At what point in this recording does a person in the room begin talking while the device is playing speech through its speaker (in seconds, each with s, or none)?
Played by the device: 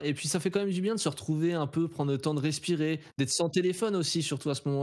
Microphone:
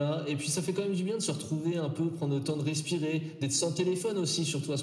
none